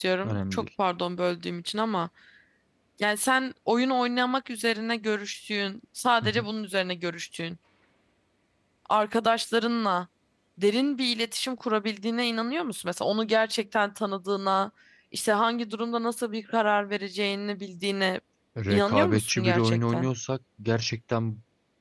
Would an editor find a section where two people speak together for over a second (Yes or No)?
Yes